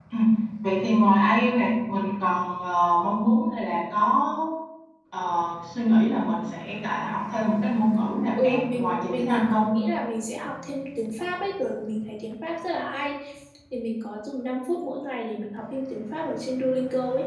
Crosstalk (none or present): present